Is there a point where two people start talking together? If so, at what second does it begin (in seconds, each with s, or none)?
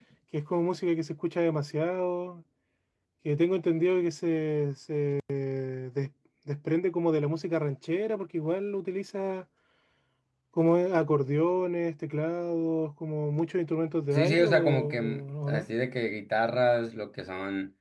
14.1 s